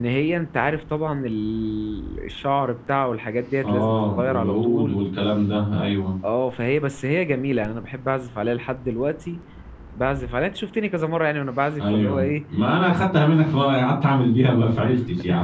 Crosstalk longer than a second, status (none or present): present